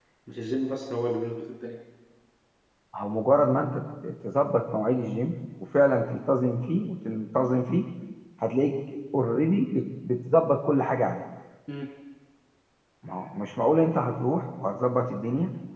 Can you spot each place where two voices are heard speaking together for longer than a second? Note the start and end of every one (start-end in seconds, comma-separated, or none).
none